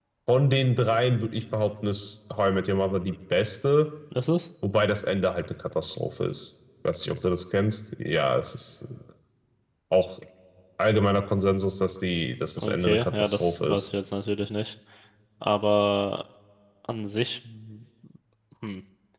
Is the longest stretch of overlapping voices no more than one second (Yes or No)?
No